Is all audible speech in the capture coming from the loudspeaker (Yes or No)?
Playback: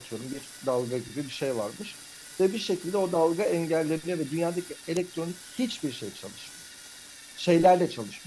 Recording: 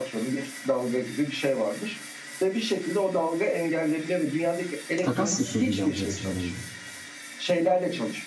No